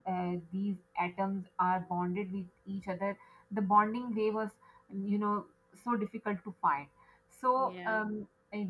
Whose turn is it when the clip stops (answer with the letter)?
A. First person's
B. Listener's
A